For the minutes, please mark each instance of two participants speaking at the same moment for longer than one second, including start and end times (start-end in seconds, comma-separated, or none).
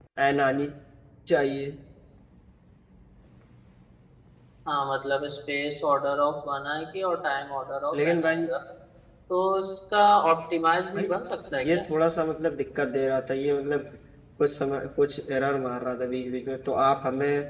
none